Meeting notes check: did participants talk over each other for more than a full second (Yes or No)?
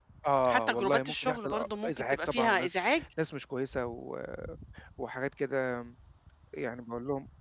Yes